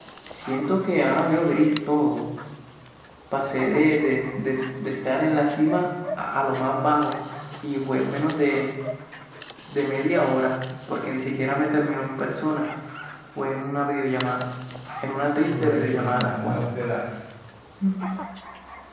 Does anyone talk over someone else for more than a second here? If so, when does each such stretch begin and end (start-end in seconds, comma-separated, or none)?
15.4-16.6